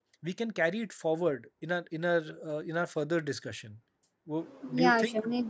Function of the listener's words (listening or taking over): taking over